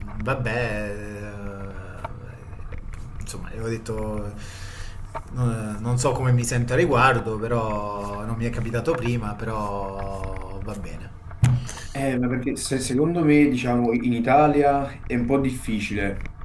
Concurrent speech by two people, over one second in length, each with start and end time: none

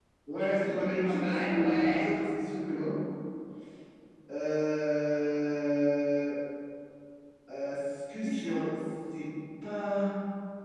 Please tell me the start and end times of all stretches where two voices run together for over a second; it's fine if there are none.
0.7-2.0

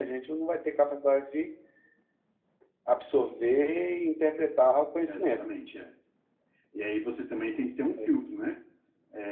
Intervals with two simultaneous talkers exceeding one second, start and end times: none

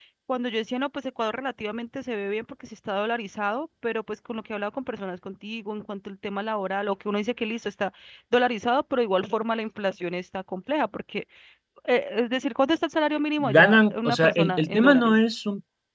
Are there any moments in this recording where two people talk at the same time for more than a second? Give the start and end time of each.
13.4-15.2

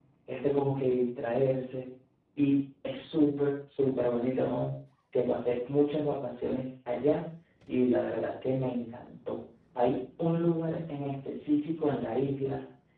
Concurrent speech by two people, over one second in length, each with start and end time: none

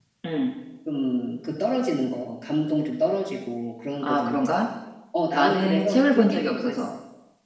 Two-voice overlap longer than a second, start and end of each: 5.3-6.9

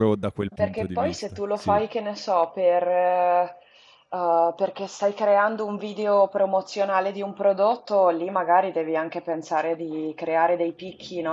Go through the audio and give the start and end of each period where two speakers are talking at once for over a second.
0.6-1.8

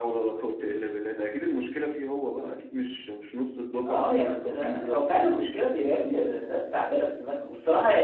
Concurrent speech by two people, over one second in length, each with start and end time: 3.9-5.3

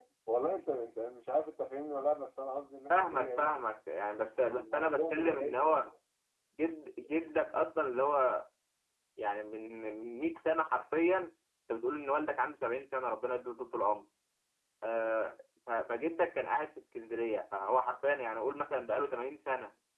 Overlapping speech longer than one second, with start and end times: 4.4-5.8

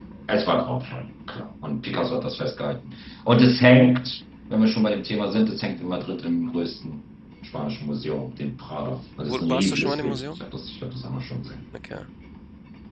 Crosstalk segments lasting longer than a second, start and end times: 9.2-10.4

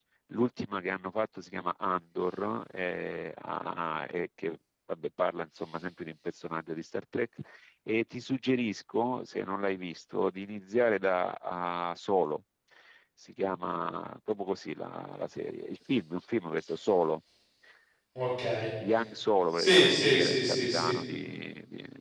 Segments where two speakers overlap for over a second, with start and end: 19.5-20.9

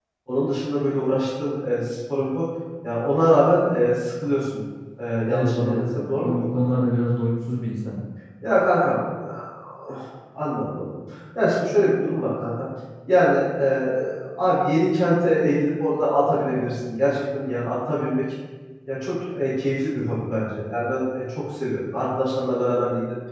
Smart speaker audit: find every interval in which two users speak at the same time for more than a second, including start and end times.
5.3-6.6

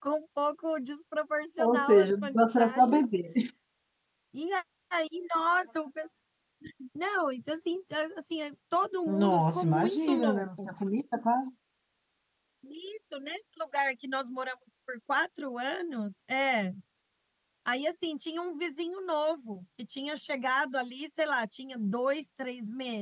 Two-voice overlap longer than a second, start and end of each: 1.6-3.0, 9.1-10.7

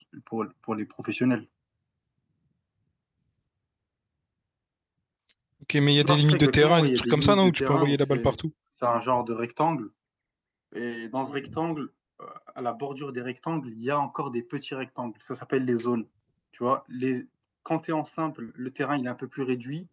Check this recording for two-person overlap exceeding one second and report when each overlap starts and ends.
6.0-8.4

